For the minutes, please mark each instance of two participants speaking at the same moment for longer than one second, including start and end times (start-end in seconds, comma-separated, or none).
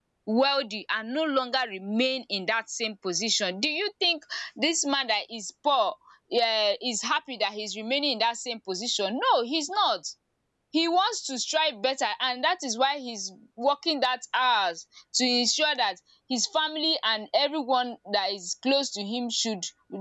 none